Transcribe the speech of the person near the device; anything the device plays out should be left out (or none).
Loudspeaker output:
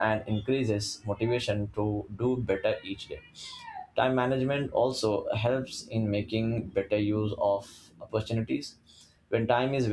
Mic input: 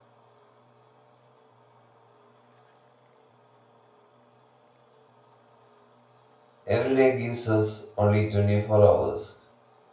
Every day gives us only 24 hours,